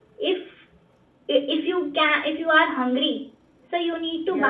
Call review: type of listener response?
listening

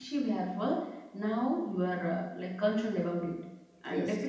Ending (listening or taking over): listening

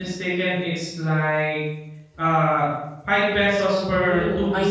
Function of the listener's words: taking over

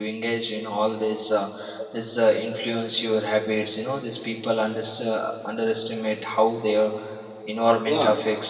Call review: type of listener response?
taking over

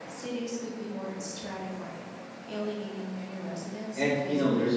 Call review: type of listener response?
taking over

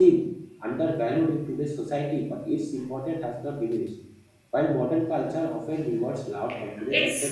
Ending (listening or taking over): listening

